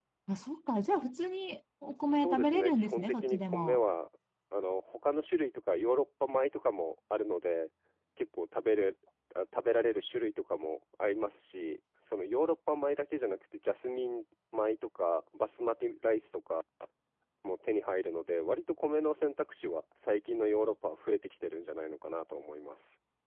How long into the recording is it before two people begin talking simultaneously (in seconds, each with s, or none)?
2.1 s